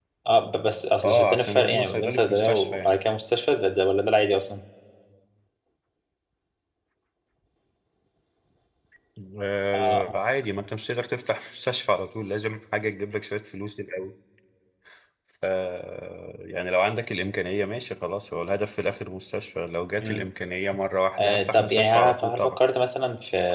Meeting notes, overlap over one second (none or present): present